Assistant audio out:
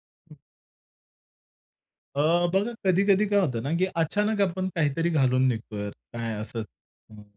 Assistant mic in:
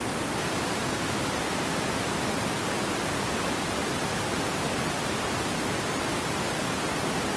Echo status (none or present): none